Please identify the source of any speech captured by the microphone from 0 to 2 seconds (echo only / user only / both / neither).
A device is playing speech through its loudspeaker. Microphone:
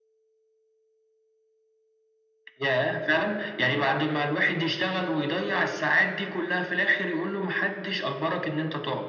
neither